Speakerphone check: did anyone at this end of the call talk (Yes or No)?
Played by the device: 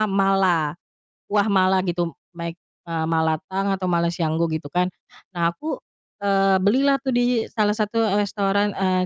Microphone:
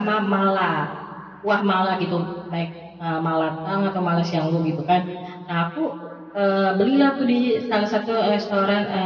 No